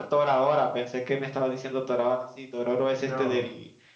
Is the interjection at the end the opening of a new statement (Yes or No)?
No